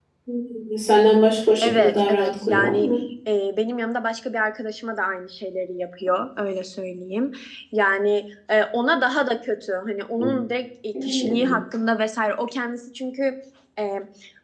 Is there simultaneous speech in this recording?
Yes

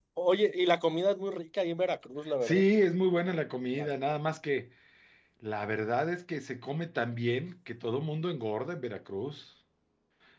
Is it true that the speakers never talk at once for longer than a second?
Yes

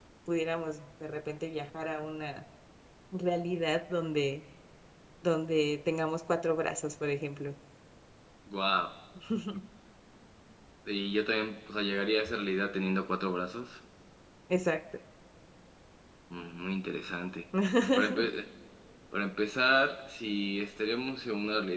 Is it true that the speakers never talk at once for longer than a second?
Yes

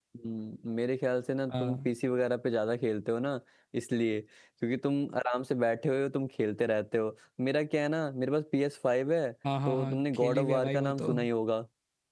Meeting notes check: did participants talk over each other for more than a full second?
Yes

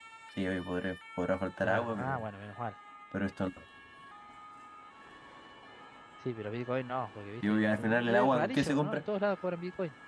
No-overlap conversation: No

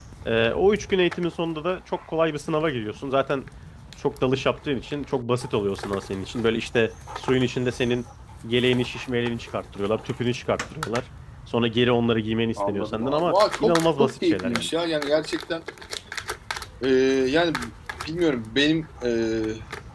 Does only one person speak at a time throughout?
No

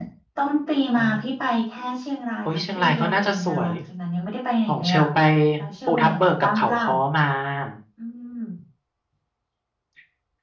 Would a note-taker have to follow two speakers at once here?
Yes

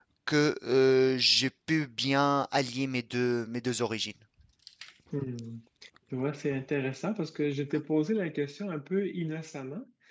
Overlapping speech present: No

